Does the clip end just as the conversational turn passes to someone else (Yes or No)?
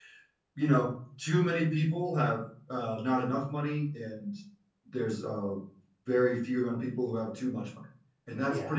No